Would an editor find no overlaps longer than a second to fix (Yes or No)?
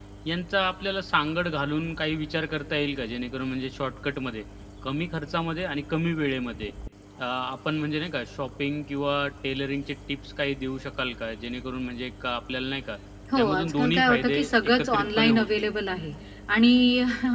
No